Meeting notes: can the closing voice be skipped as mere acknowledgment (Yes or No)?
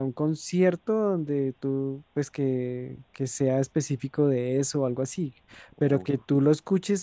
Yes